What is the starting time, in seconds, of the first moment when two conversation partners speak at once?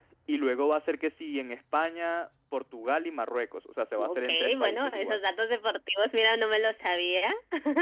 4.0 s

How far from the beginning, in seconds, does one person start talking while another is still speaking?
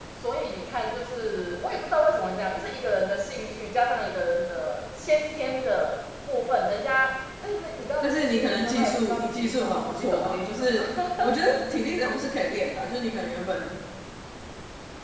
8.0 s

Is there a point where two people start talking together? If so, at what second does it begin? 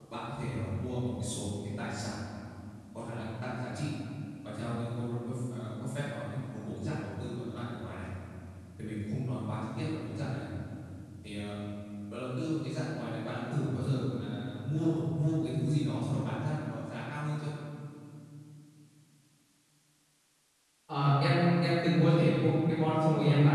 none

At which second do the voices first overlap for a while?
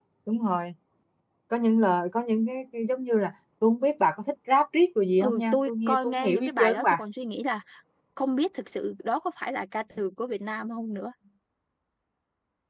5.2 s

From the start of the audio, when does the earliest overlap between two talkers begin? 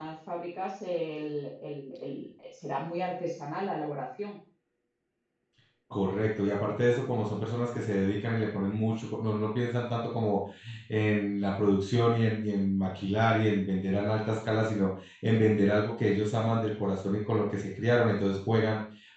none

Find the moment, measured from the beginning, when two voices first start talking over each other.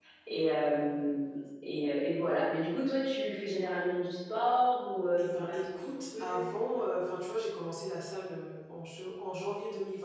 5.2 s

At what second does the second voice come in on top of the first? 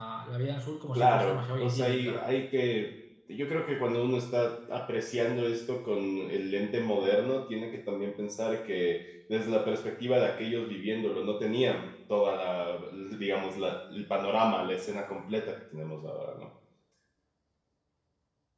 0.9 s

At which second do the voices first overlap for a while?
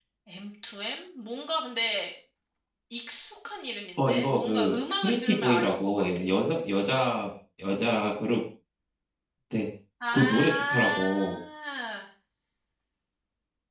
4.0 s

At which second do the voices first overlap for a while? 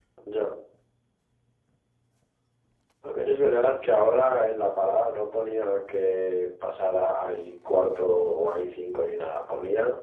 none

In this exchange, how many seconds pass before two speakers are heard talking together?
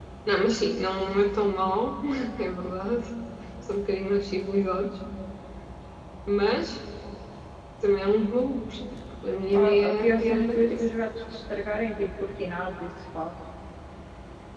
9.5 s

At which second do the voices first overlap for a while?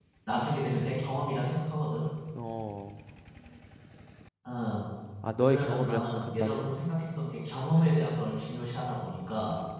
5.4 s

